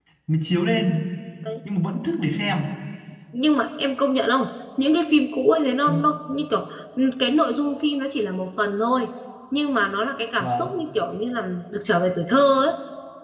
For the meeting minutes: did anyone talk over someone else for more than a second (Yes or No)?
No